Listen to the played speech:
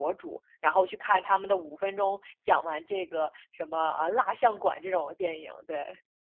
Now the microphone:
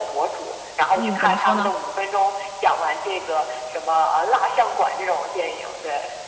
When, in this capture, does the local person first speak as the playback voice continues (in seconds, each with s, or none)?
0.9 s